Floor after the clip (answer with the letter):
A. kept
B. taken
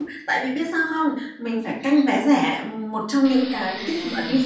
A